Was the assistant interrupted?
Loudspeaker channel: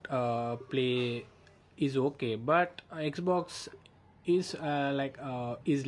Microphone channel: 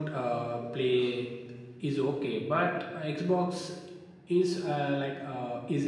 No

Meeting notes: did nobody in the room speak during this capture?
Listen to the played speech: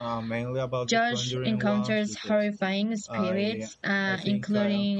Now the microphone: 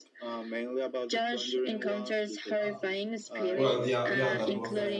No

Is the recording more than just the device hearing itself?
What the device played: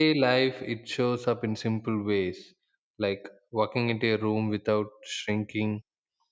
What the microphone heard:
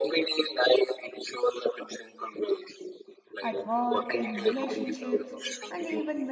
Yes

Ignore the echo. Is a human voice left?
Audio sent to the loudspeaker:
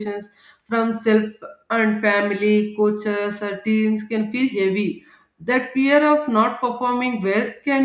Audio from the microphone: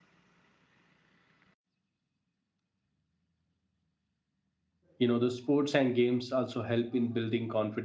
Yes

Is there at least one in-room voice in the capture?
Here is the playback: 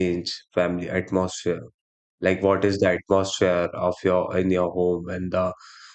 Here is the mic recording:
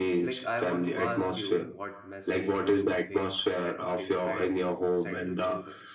Yes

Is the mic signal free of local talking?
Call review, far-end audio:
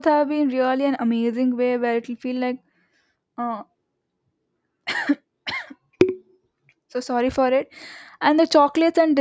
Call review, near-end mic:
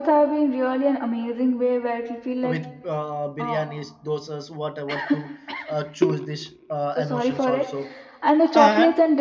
No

